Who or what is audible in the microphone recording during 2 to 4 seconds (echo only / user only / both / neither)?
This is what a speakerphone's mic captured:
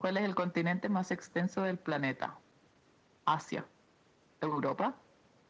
echo only